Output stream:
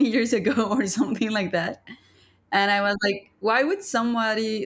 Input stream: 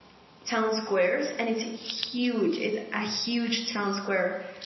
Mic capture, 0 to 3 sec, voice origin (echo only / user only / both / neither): user only